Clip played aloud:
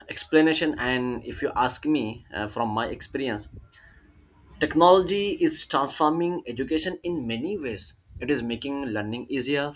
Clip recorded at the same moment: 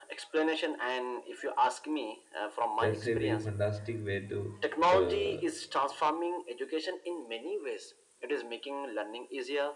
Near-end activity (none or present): present